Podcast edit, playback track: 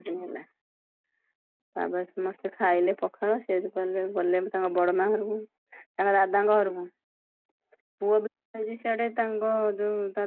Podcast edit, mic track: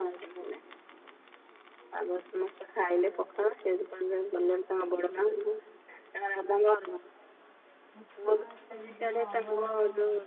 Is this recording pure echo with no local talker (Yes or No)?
No